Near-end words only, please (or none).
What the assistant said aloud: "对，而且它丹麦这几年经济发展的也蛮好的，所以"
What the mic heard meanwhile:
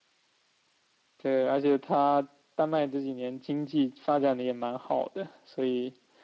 none